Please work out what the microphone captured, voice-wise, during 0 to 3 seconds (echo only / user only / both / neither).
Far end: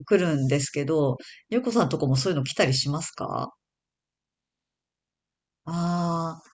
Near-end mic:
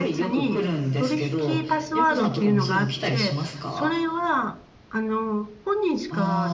both